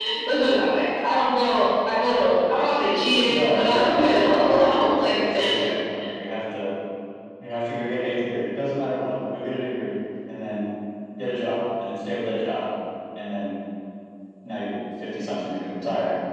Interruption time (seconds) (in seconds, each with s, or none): 3.3 s